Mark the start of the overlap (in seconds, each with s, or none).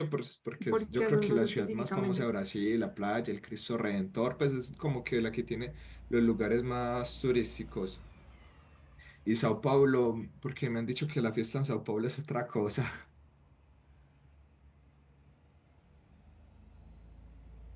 0.7 s